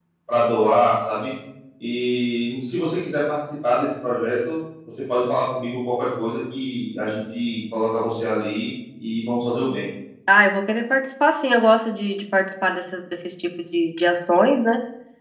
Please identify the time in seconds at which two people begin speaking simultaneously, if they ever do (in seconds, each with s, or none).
none